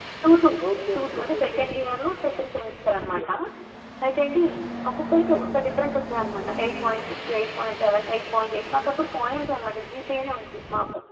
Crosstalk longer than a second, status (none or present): present